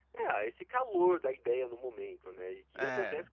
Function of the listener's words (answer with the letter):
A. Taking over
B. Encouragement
B